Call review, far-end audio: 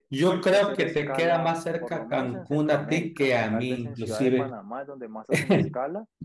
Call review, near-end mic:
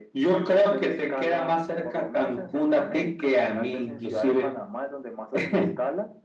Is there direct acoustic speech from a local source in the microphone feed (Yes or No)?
No